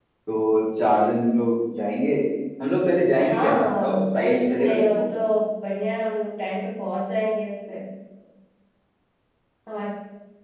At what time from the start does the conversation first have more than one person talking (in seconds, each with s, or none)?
3.3 s